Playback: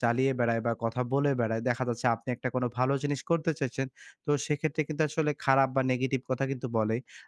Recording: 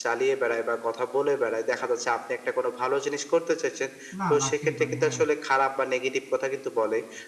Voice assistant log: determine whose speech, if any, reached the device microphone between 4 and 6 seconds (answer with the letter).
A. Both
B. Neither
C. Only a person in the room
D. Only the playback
A